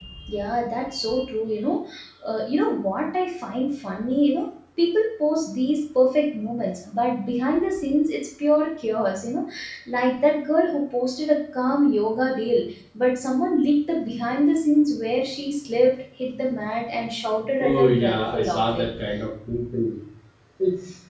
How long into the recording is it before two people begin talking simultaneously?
18 s

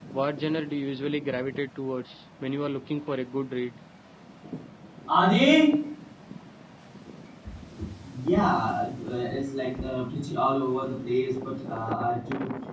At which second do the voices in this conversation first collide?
none

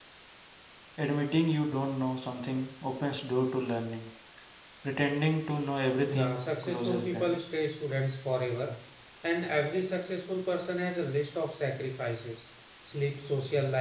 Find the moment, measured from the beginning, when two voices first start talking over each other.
6 s

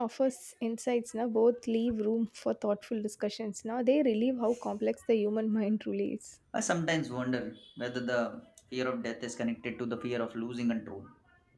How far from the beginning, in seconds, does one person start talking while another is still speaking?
none

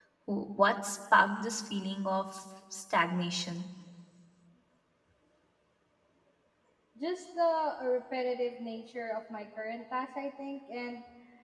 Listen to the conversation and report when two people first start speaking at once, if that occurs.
none

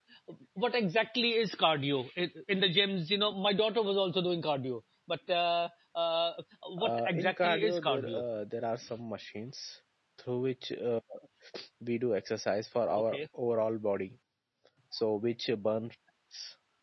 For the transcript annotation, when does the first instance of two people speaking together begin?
7 s

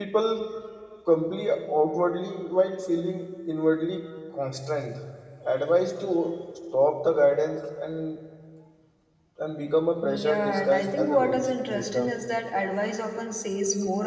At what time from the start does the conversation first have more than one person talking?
10 s

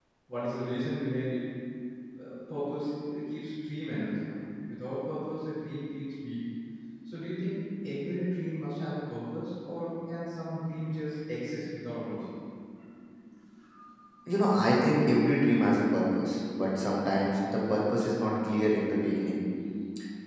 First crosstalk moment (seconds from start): none

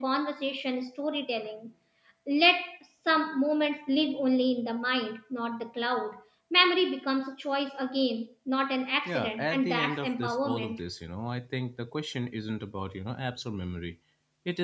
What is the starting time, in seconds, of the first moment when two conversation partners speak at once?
9 s

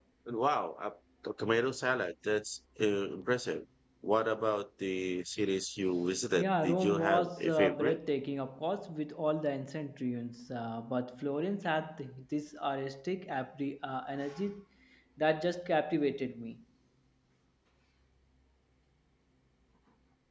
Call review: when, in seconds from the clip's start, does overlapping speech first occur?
6 s

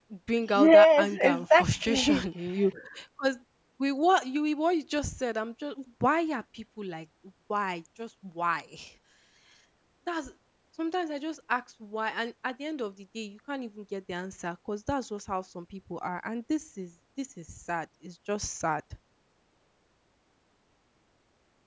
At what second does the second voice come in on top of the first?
1 s

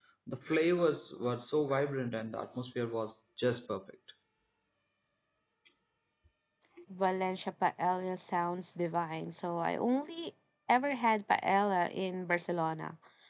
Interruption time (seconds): none

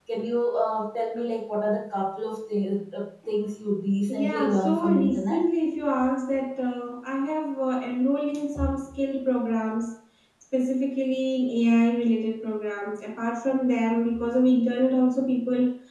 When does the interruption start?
4 s

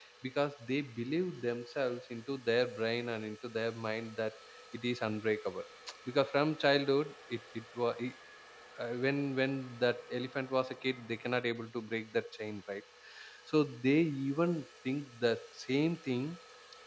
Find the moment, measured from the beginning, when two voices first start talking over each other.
none

